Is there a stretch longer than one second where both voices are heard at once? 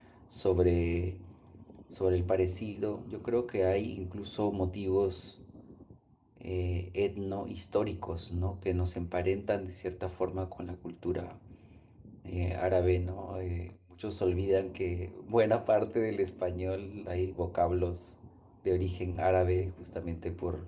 No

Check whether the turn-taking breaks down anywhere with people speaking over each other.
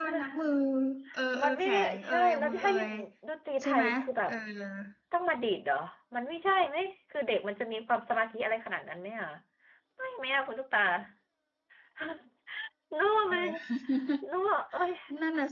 Yes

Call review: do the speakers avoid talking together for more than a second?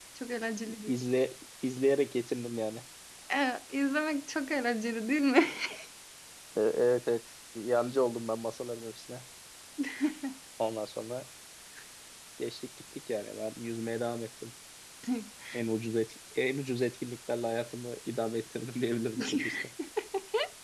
Yes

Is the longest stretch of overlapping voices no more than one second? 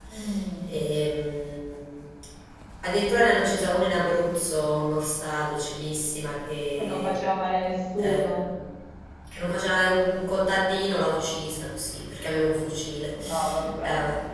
Yes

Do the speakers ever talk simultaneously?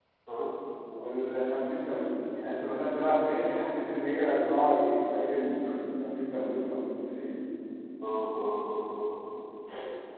No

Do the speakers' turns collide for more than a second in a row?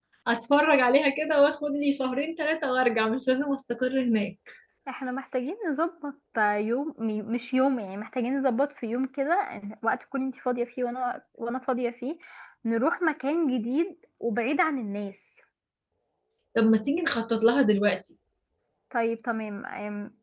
No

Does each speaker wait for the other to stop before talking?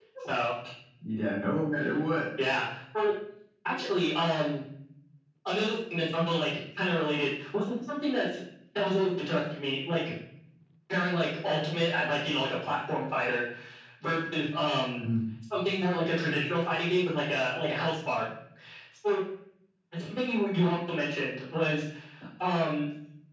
Yes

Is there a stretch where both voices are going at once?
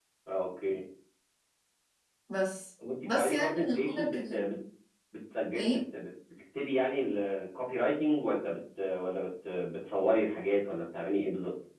Yes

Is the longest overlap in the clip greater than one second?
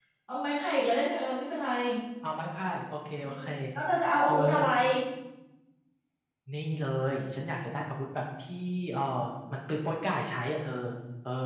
No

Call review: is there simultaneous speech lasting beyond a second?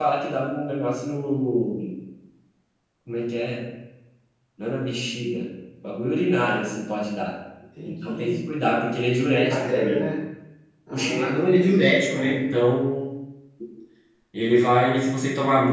Yes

